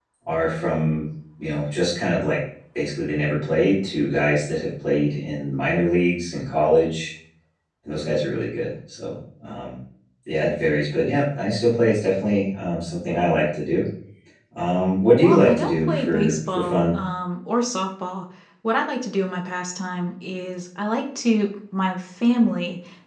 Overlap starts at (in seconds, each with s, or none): 15.2 s